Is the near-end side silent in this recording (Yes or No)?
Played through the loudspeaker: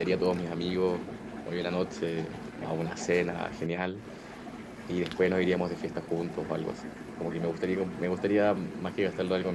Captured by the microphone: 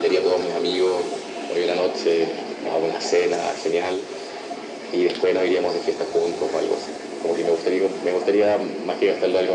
Yes